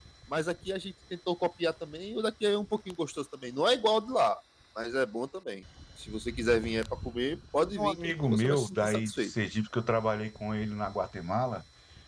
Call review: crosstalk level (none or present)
present